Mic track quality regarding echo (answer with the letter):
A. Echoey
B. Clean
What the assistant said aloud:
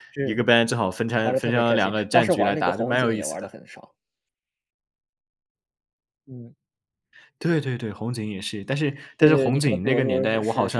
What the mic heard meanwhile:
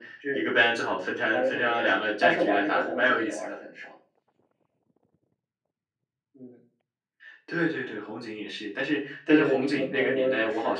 A